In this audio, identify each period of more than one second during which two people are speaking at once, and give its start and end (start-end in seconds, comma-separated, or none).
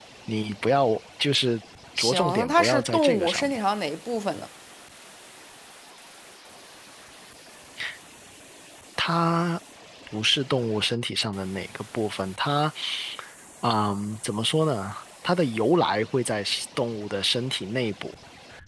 2.0-3.6